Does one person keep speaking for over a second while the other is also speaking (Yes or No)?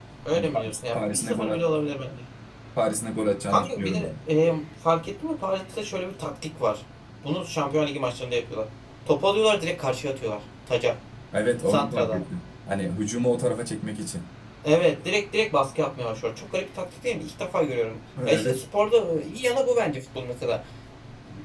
Yes